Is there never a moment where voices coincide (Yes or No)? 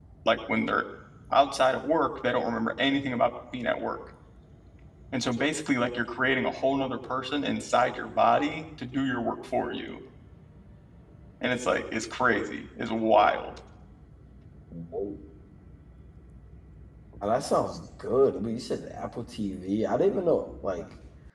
Yes